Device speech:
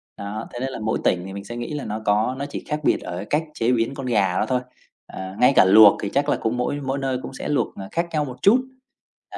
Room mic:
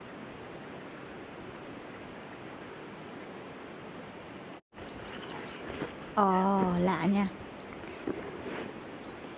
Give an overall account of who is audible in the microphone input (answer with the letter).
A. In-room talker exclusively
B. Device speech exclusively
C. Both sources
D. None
A